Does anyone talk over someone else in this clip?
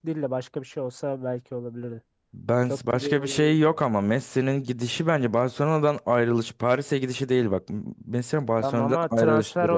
Yes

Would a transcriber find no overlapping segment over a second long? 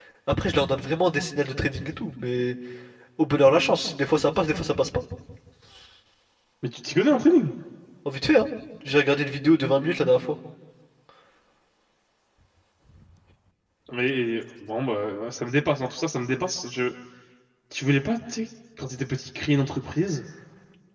Yes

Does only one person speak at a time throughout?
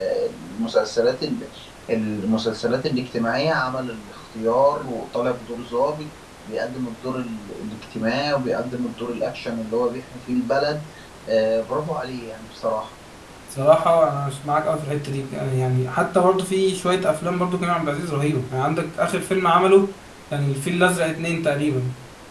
Yes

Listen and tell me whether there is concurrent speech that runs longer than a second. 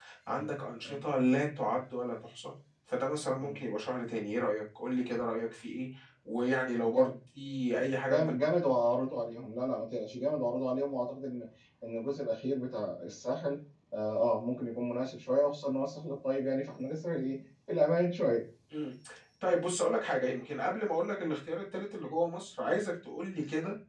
No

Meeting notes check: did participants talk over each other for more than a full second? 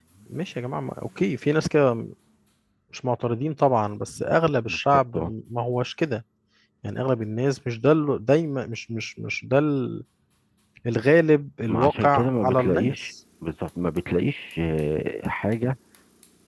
Yes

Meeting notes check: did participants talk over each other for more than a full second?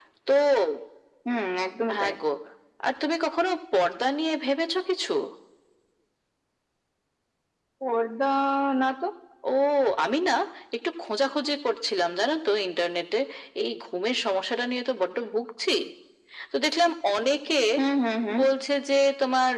No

